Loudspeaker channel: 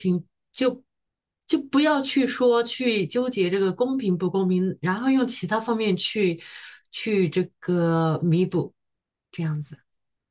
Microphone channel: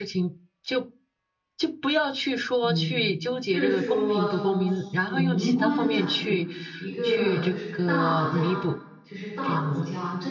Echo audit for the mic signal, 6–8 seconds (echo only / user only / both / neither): both